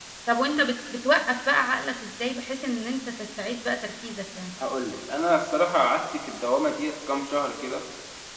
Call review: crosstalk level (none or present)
none